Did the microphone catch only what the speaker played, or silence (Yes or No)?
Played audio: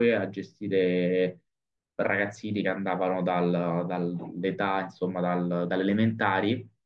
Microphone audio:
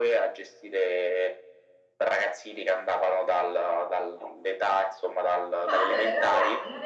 No